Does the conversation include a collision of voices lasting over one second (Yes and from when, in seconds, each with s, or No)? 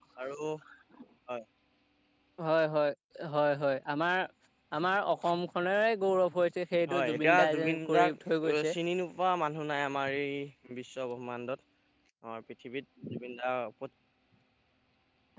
Yes, from 6.9 s